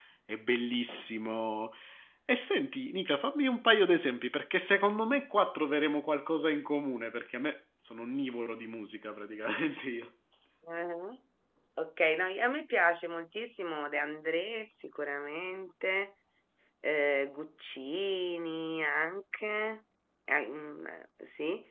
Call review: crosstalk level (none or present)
none